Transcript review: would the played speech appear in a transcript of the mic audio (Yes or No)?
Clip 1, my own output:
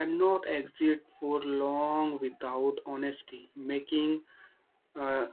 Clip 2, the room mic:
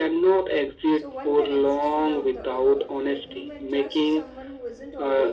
Yes